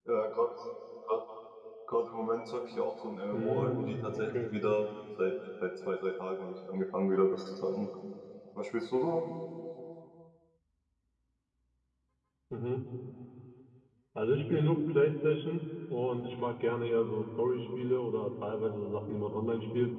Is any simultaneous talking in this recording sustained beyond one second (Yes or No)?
Yes